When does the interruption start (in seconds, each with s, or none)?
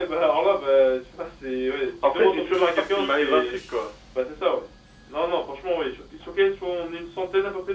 2.0 s